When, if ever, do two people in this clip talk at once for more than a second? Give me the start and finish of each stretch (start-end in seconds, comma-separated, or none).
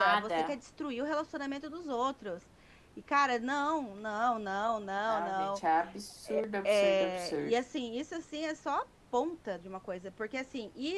6.3-7.5